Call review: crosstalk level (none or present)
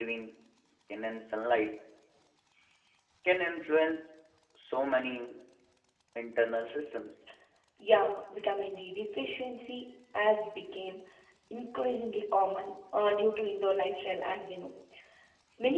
none